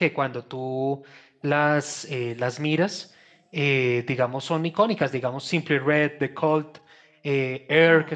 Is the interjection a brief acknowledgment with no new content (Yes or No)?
Yes